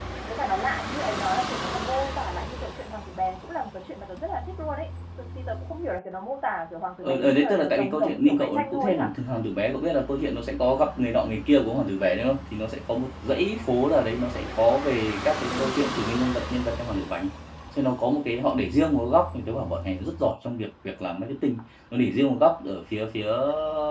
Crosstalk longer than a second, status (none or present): present